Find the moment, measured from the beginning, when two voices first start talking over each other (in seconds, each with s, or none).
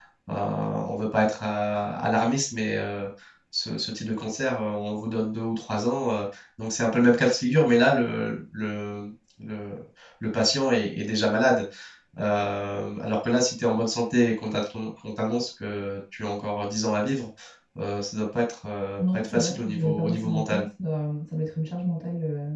19.0 s